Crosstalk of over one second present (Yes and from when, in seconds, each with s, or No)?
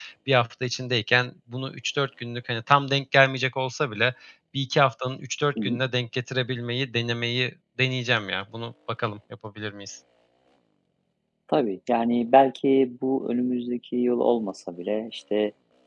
No